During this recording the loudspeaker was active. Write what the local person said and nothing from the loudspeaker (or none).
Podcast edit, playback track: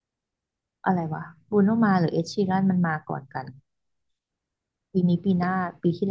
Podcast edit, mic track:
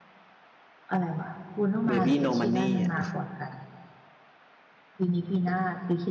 Baby No Money อ่ะ